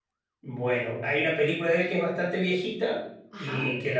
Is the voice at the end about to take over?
No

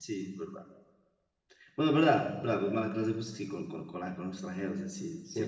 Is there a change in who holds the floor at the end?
Yes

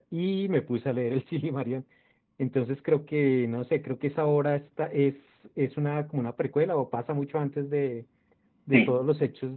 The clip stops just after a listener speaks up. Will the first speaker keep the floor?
Yes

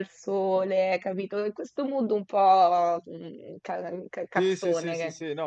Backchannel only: No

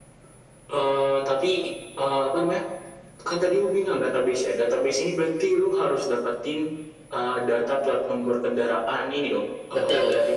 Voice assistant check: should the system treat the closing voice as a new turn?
No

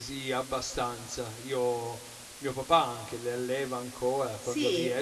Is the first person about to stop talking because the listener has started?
No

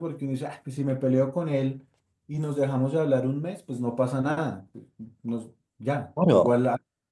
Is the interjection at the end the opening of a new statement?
No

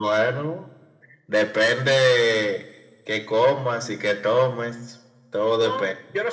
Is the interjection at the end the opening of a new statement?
Yes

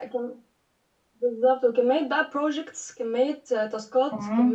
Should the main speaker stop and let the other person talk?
No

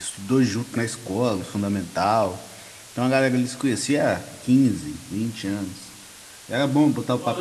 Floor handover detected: Yes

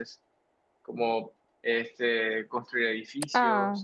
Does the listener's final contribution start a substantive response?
No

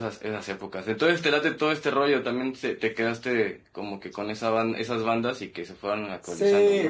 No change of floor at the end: No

